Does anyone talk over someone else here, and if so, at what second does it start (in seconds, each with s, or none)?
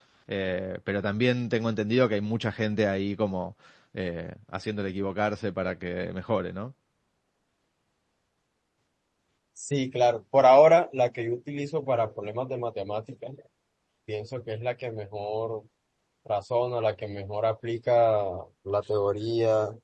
none